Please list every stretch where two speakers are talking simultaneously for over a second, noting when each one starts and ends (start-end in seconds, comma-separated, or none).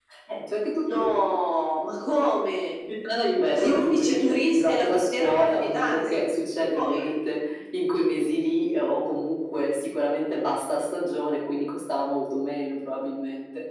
3.5-6.2